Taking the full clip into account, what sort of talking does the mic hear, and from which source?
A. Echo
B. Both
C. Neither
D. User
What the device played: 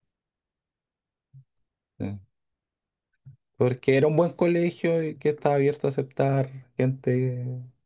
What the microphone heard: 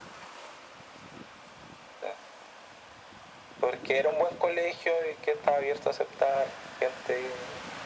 A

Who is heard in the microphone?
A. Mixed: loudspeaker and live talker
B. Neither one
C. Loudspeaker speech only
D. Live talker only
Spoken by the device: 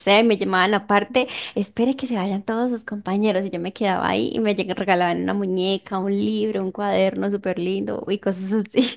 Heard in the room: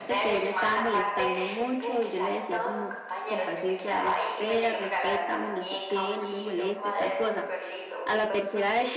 A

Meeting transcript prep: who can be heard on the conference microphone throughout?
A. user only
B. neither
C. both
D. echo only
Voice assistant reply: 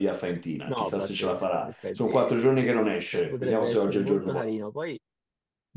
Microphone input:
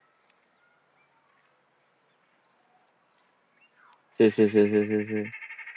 A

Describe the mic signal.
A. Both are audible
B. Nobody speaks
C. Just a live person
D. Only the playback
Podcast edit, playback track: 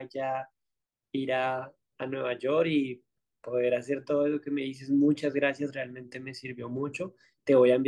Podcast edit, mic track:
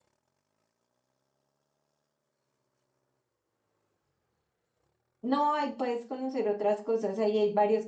C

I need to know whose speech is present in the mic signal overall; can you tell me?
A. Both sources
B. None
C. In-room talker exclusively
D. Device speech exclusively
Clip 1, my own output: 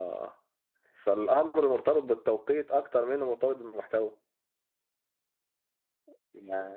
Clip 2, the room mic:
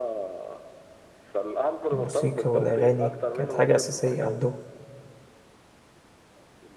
A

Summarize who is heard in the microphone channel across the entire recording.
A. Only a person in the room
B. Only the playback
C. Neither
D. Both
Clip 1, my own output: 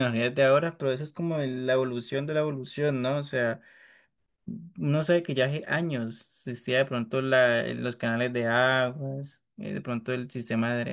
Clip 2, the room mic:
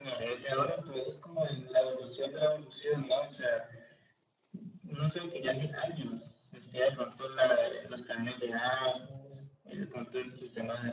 B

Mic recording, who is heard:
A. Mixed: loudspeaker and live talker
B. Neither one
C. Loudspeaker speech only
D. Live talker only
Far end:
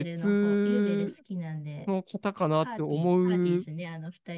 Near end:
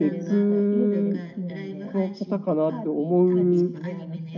A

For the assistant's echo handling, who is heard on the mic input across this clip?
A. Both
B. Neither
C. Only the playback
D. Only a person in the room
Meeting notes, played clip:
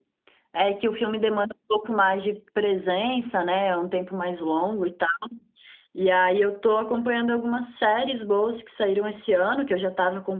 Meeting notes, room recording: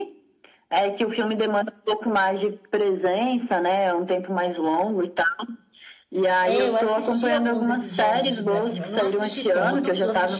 A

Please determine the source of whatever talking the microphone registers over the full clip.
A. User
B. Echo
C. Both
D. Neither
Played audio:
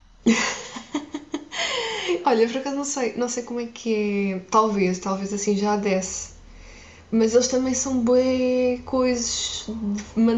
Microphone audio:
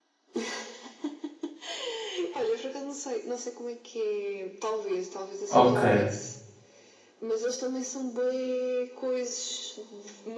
C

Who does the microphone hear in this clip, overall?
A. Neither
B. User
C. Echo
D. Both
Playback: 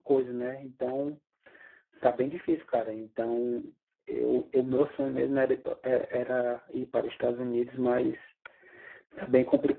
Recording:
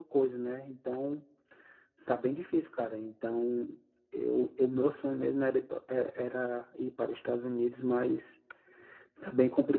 C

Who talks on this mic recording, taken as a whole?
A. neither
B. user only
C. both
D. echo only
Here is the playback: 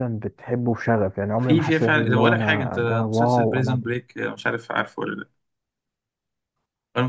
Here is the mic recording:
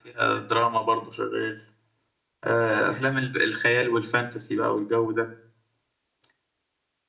B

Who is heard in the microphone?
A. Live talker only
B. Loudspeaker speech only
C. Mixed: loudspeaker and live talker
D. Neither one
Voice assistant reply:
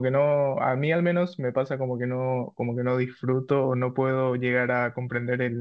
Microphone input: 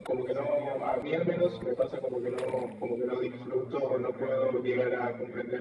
C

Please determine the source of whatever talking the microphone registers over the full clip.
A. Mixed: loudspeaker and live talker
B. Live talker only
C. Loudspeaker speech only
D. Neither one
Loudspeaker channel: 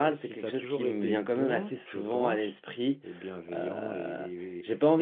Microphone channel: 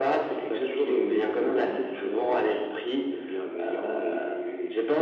C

